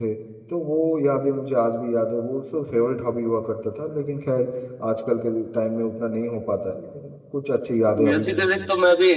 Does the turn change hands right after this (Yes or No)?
Yes